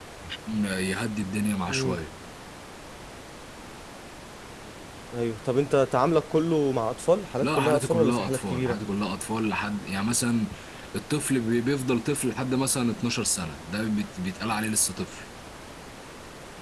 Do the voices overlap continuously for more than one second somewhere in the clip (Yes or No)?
Yes